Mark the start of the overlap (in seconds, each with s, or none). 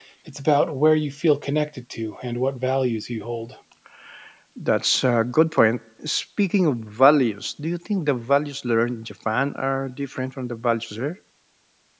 none